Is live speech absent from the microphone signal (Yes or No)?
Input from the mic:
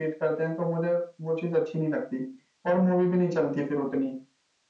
Yes